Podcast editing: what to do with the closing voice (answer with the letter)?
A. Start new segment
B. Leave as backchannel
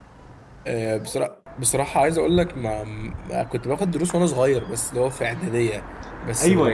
A